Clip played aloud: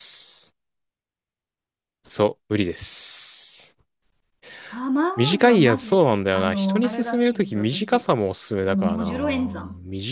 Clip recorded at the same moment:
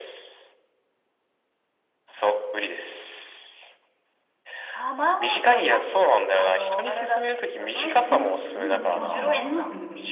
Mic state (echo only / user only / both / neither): both